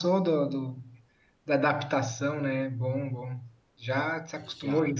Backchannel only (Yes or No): Yes